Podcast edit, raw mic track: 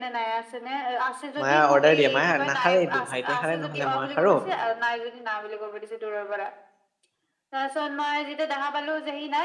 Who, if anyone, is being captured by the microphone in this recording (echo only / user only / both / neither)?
both